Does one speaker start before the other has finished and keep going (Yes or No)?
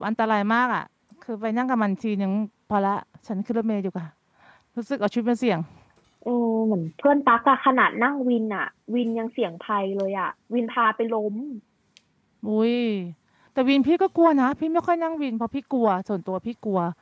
No